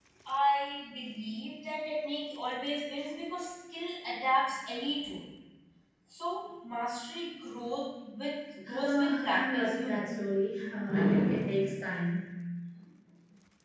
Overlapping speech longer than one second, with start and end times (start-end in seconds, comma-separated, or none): 8.7-10.1